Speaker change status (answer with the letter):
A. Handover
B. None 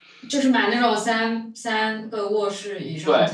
A